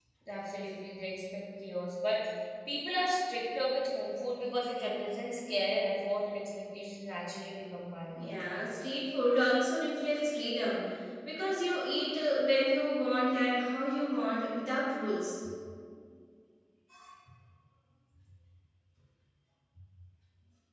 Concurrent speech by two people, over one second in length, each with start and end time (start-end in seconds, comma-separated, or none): none